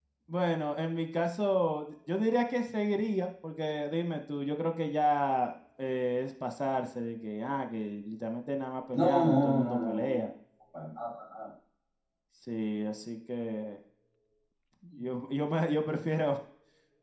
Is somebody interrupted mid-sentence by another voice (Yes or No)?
Yes